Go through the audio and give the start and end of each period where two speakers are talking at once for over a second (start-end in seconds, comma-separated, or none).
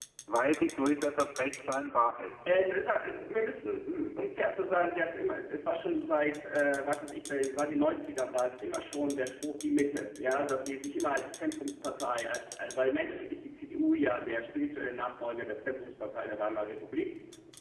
none